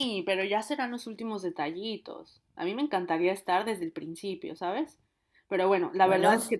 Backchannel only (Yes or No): Yes